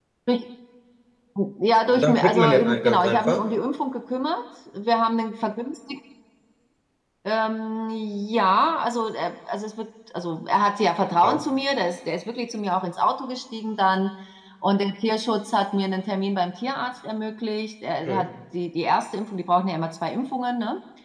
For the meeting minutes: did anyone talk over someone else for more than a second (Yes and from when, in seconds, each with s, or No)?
Yes, from 1.9 s